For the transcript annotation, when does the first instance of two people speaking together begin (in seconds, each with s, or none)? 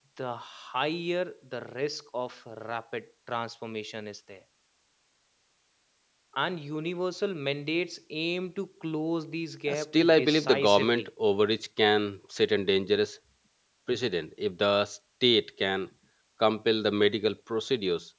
9.7 s